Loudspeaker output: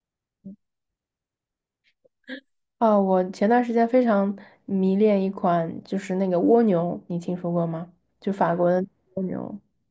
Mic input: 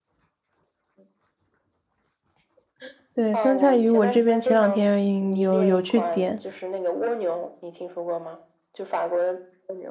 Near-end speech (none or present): present